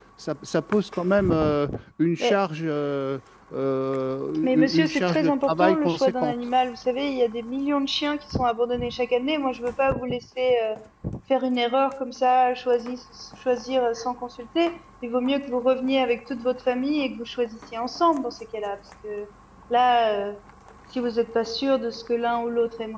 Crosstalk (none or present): present